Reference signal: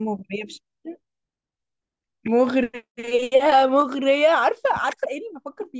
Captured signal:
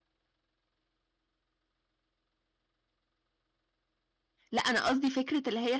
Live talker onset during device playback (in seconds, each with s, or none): 4.5 s